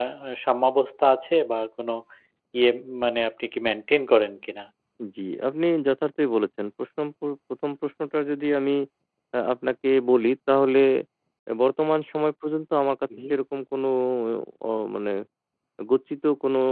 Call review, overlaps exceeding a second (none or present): none